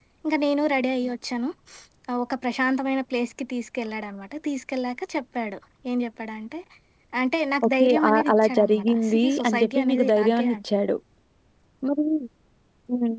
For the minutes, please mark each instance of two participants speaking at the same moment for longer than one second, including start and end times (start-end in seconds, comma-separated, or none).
7.6-10.5